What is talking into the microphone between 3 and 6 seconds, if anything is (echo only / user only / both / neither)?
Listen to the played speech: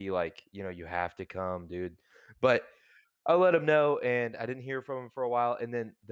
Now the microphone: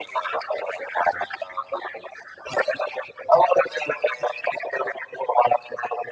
echo only